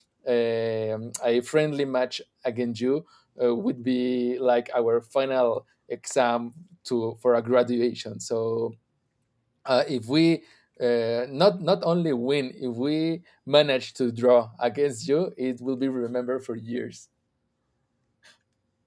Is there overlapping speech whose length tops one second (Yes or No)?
No